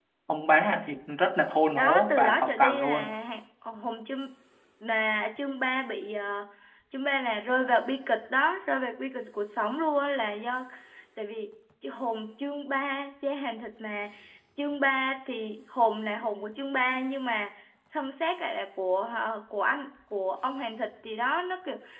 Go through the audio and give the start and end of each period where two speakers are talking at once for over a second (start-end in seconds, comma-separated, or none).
1.8-3.1